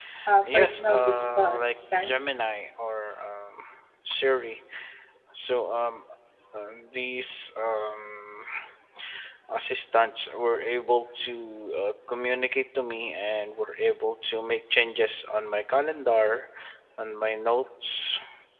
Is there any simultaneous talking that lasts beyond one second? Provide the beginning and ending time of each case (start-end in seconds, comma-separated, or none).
0.5-2.1